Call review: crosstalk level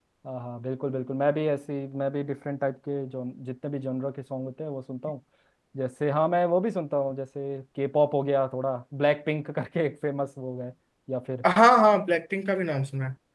none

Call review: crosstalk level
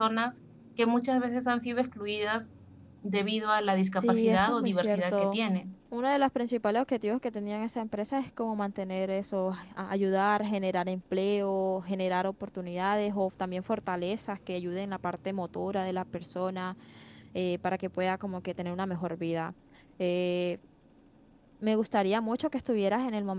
present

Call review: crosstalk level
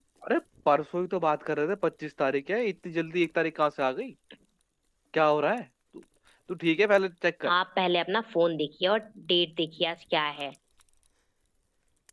none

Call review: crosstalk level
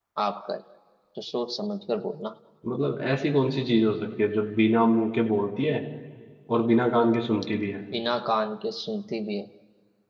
none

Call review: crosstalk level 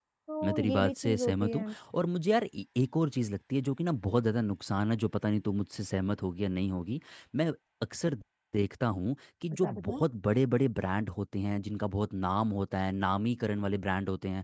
present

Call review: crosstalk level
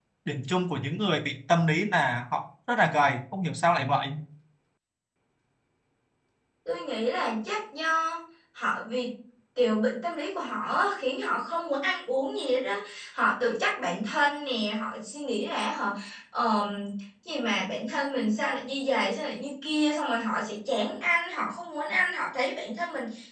none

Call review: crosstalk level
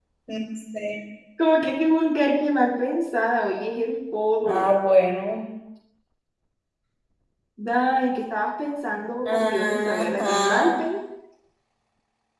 present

